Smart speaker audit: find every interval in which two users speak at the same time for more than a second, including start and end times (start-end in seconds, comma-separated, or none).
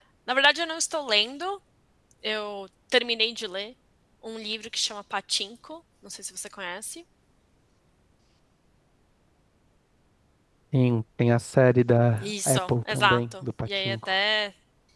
12.2-14.2